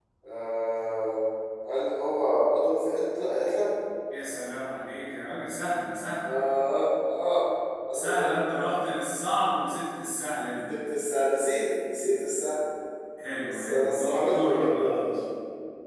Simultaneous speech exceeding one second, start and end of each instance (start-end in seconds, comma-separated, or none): 13.5-15.1